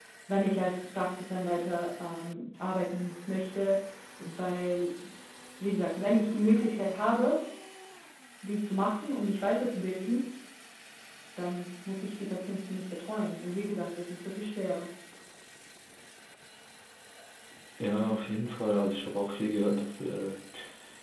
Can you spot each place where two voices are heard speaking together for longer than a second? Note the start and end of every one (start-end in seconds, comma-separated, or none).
none